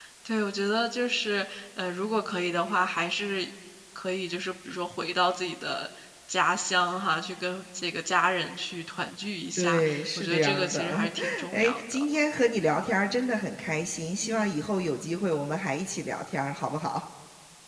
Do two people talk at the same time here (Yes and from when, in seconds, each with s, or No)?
Yes, from 9.6 s